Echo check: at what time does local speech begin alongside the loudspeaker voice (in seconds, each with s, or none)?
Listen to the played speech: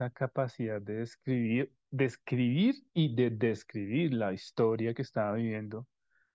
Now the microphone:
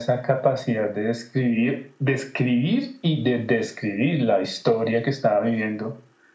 none